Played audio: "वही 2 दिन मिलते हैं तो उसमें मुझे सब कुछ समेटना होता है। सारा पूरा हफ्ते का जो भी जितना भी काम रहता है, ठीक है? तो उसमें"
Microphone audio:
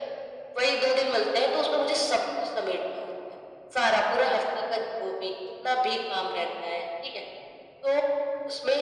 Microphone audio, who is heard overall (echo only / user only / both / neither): echo only